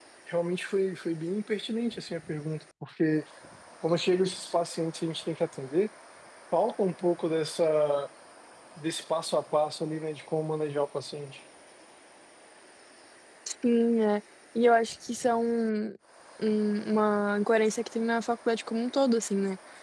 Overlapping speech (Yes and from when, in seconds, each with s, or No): No